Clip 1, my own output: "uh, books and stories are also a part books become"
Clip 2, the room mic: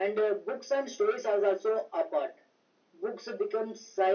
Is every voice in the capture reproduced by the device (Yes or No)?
Yes